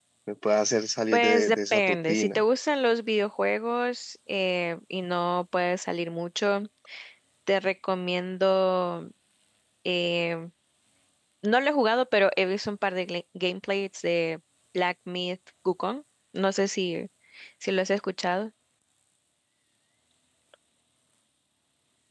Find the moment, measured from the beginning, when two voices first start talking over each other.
1.1 s

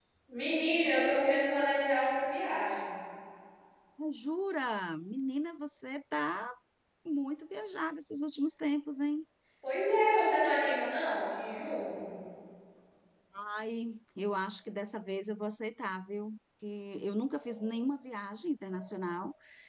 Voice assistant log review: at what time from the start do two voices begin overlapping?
none

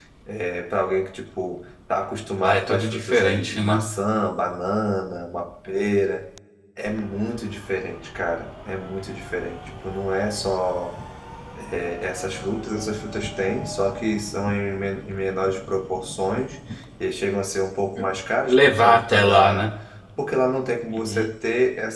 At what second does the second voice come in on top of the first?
2.4 s

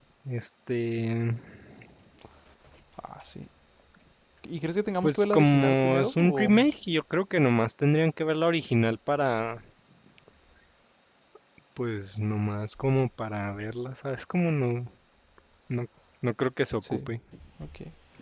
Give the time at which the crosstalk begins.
5.0 s

